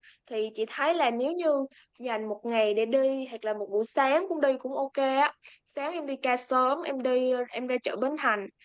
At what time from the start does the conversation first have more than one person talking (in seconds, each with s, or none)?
none